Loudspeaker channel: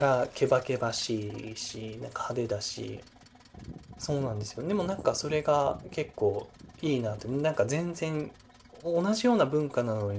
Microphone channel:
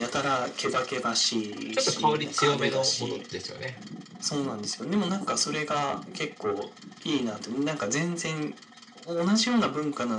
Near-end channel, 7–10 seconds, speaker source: echo only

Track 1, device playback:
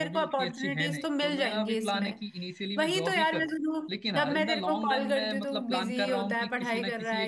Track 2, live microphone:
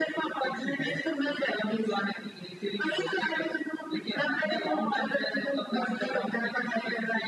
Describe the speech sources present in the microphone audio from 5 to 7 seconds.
echo only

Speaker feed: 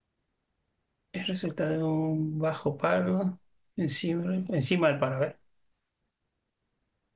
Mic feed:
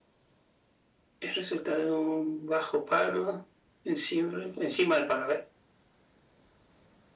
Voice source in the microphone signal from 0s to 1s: neither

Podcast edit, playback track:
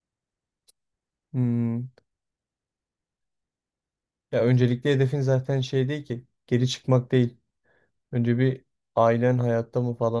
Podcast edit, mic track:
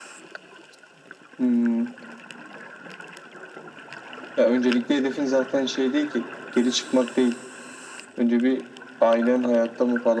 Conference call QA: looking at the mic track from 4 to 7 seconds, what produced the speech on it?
echo only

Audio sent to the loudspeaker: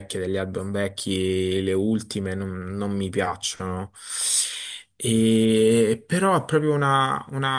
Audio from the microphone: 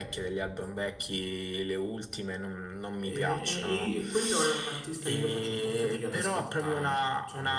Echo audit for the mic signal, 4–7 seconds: both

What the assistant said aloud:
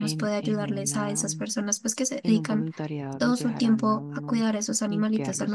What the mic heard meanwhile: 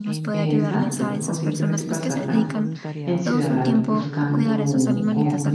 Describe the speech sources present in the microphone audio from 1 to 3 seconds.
both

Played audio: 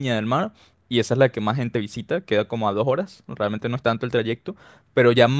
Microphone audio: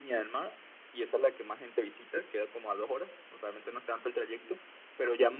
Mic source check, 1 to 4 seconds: echo only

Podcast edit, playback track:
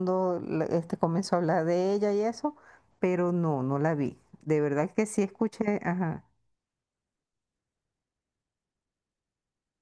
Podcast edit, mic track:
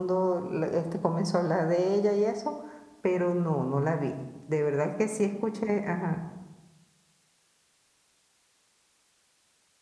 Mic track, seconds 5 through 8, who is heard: echo only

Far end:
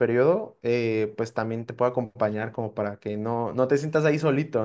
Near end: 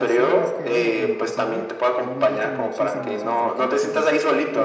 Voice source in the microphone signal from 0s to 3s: both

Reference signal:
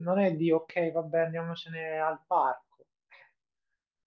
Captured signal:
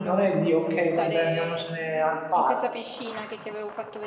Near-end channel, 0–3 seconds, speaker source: both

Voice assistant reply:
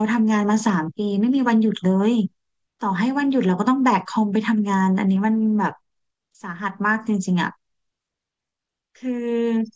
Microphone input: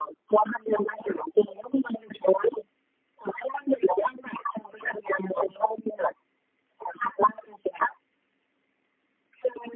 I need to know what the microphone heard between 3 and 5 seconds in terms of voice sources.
echo only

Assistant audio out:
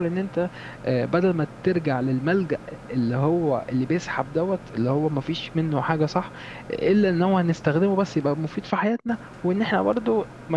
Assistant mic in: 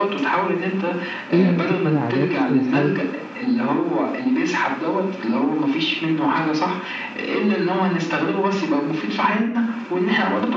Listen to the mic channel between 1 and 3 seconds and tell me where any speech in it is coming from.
both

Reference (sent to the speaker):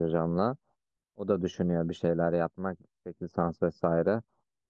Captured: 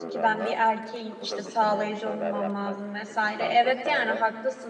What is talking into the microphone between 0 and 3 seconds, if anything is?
both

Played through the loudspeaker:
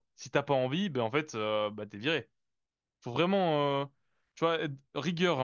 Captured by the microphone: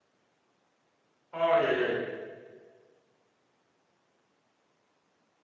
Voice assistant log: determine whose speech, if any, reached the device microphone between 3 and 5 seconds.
neither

